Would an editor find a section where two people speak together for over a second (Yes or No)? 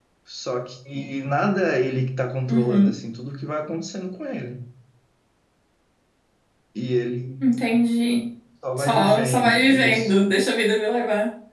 Yes